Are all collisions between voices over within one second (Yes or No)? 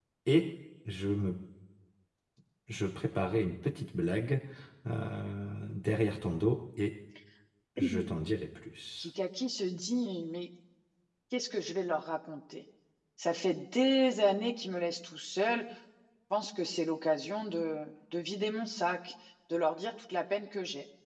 Yes